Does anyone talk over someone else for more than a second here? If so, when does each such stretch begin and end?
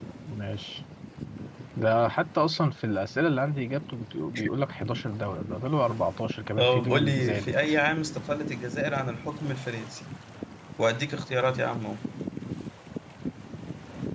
6.6-7.8

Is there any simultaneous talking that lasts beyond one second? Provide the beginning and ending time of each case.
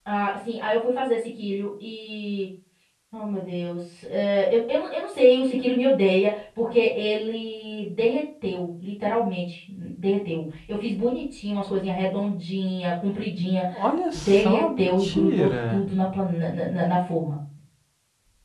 14.2-15.9

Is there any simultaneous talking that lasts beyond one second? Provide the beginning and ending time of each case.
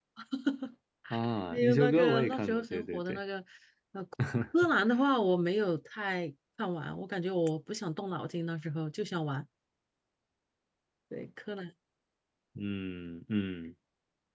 1.5-3.2

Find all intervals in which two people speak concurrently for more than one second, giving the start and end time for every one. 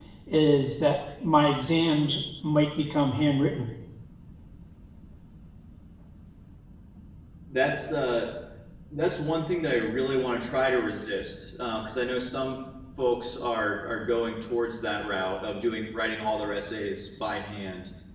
none

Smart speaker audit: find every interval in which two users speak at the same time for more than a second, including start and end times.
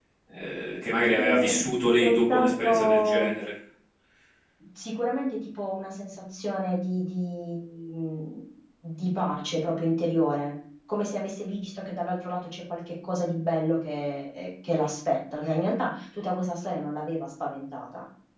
2.0-3.3

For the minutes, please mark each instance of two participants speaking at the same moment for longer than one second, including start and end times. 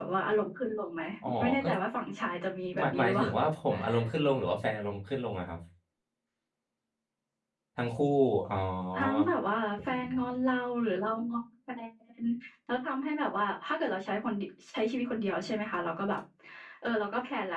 none

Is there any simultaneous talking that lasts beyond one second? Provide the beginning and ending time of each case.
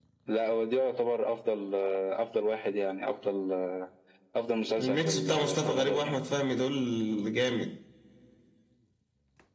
4.8-6.2

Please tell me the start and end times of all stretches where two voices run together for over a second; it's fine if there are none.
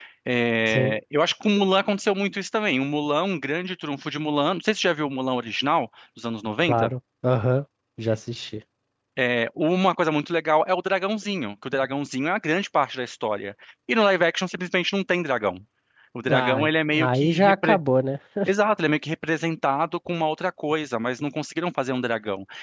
16.3-17.8

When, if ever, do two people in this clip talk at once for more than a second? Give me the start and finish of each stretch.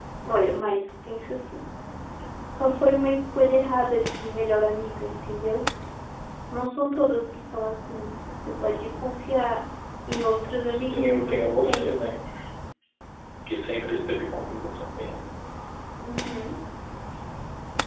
10.6-11.9

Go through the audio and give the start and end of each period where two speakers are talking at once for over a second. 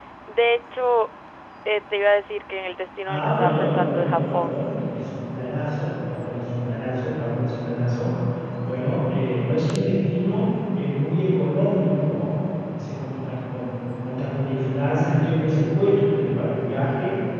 3.1-4.7

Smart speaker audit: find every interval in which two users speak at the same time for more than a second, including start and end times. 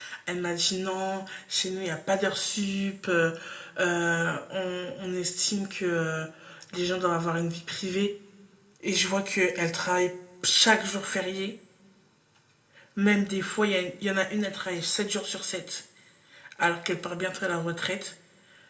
none

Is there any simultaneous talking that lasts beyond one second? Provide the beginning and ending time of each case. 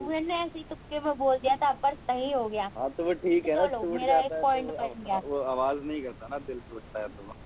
3.5-5.2

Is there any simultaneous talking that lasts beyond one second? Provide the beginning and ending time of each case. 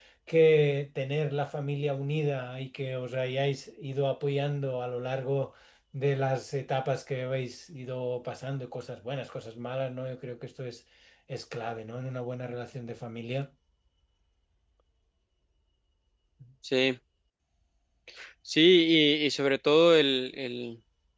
none

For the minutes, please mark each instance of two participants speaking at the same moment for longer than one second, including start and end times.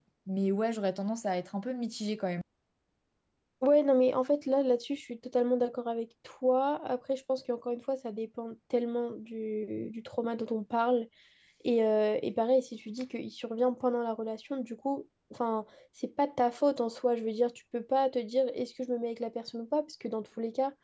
none

